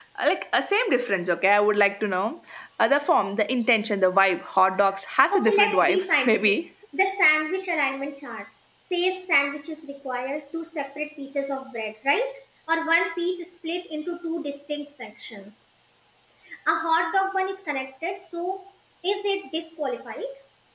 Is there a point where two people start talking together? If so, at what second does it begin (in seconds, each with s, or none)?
5.3 s